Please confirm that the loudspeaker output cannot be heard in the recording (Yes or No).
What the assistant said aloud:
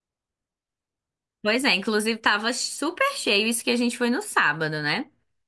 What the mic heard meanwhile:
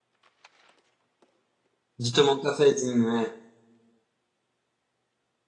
Yes